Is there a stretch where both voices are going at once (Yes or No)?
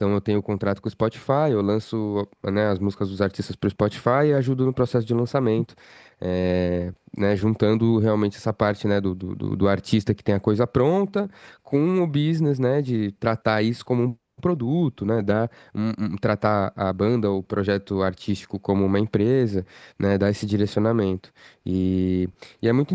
No